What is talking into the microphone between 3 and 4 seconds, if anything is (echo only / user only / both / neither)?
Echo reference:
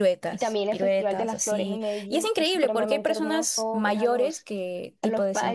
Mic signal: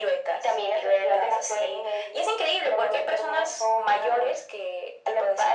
echo only